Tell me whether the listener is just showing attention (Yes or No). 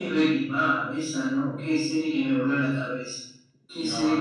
Yes